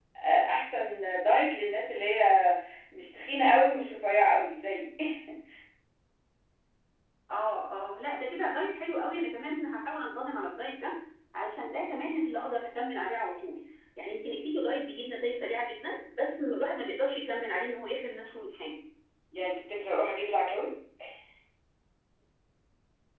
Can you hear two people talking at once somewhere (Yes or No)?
No